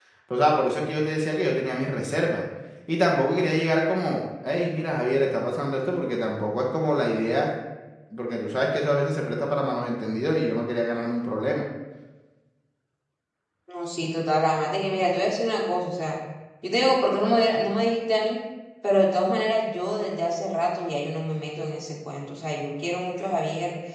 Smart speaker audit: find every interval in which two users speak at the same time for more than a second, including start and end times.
none

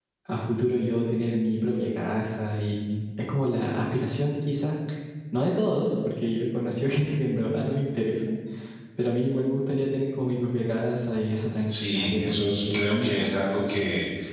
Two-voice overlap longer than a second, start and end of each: 11.7-13.4

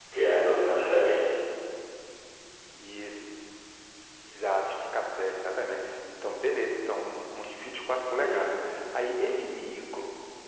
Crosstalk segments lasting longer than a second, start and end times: none

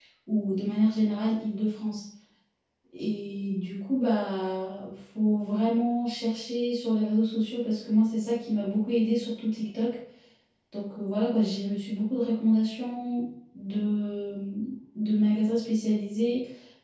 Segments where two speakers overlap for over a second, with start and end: none

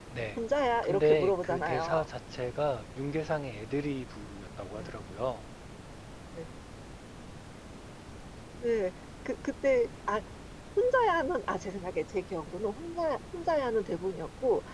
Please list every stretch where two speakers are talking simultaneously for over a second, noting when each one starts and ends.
0.8-2.1

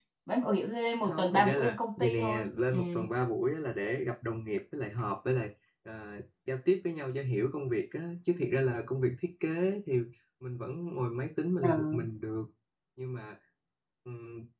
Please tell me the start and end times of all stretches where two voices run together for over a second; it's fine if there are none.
1.0-2.8

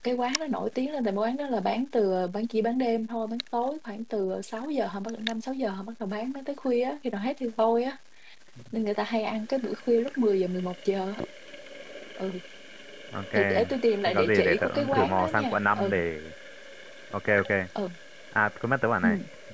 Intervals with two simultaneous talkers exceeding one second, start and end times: 14.1-15.9

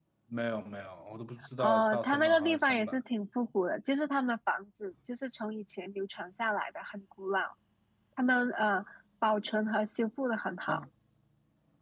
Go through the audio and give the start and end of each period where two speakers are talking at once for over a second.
1.6-3.0

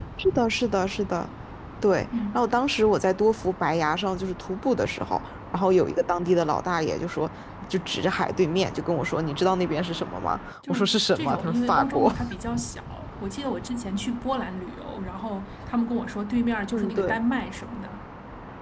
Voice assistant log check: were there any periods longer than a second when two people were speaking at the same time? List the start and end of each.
10.7-12.1

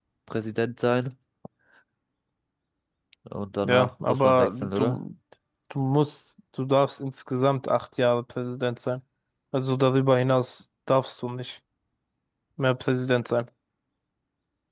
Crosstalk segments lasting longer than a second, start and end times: 3.6-5.0

